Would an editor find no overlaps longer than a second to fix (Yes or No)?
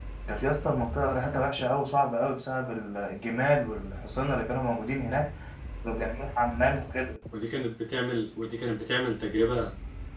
Yes